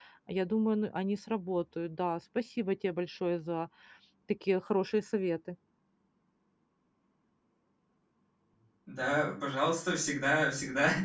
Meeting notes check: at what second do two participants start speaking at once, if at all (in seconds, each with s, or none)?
none